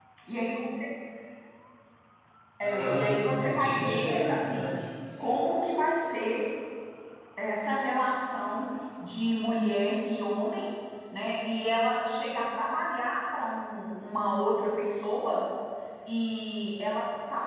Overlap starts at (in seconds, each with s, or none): 2.6 s